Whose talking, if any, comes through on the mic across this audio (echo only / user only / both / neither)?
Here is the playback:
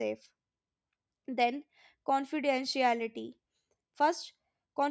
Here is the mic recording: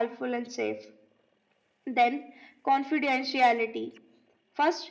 echo only